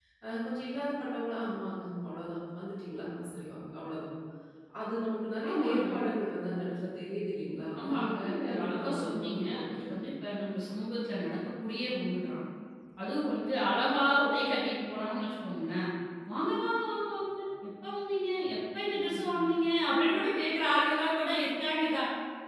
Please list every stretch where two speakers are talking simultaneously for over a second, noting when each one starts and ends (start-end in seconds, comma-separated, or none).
7.8-9.9